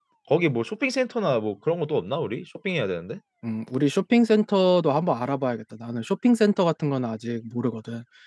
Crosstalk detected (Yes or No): No